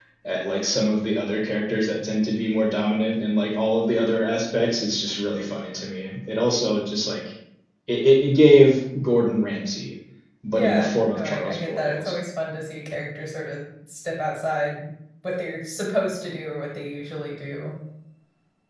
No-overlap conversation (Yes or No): No